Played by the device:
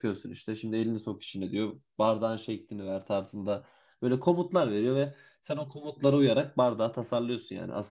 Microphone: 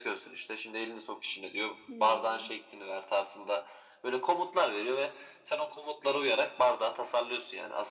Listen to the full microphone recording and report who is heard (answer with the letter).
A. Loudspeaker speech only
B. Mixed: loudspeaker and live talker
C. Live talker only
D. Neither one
B